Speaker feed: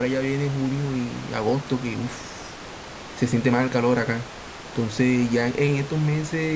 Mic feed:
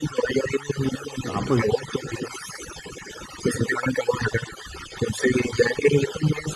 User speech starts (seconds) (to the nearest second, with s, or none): 1 s